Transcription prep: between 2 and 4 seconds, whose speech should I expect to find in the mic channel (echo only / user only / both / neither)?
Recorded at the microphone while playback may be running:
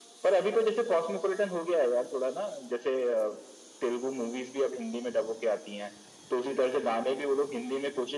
echo only